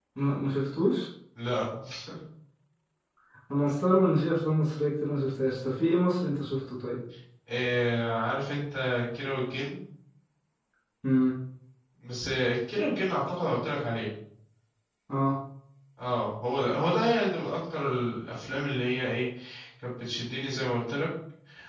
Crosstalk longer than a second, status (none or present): none